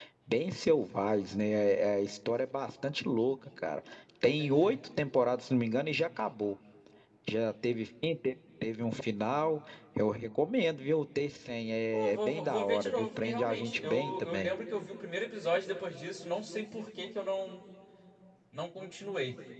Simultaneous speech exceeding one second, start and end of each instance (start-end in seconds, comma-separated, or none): 11.9-14.5